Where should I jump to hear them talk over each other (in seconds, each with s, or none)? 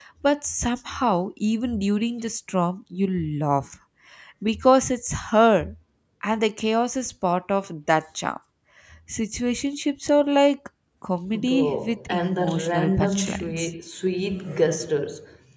11.3 s